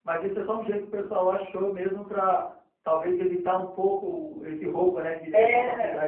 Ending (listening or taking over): taking over